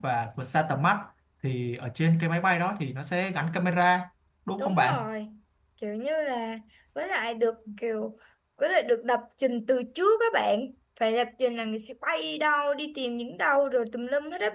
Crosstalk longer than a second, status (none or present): none